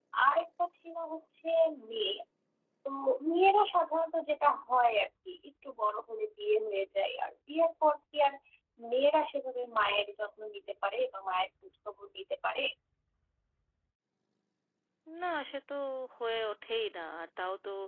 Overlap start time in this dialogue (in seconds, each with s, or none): none